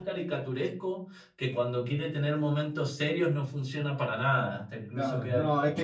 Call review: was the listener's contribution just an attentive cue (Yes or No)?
No